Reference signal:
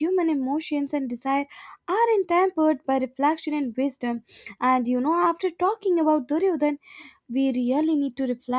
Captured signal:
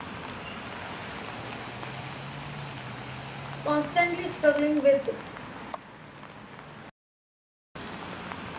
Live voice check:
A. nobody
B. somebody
B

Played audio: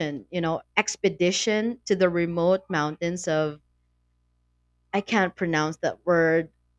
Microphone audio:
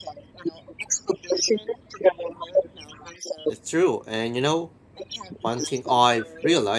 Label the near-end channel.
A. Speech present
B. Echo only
A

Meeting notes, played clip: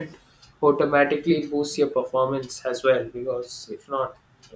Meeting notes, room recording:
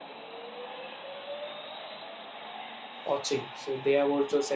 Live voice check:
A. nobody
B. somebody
B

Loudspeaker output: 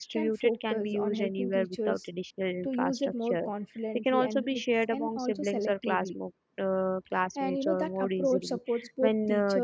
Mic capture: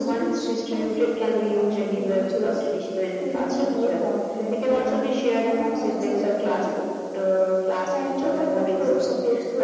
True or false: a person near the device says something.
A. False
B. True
A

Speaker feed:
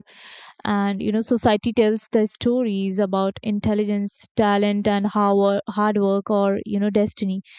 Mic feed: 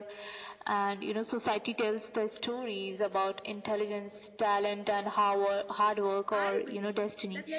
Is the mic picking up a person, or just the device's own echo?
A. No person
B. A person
B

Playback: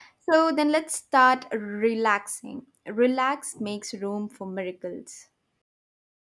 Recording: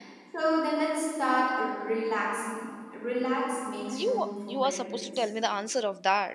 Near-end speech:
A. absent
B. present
B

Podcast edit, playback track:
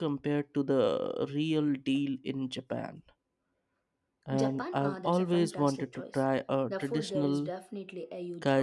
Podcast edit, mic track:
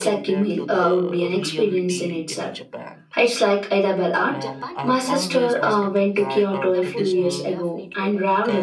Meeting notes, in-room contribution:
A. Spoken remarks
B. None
A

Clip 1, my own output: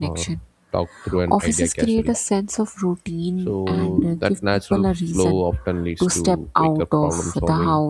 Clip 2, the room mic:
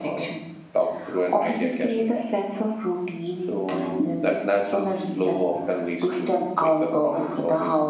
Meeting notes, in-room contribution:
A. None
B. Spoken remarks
A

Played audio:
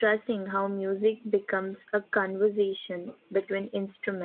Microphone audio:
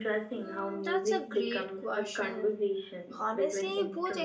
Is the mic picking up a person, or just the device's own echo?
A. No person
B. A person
B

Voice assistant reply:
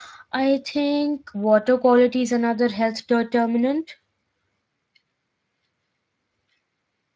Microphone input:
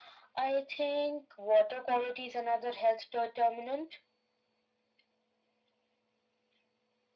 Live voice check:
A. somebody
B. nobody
B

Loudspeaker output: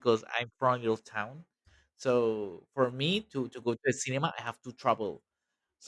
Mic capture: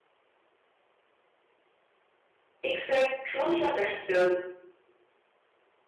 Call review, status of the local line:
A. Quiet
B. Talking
B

